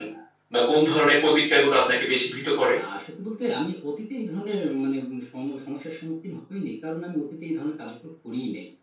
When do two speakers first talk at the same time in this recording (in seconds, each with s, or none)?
none